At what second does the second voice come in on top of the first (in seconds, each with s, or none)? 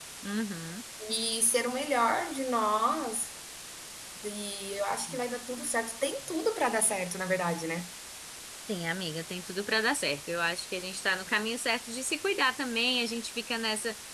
none